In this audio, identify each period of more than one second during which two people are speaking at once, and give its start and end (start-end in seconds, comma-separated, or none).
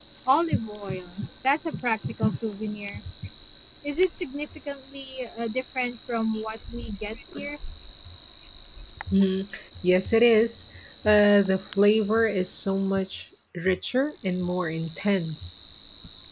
none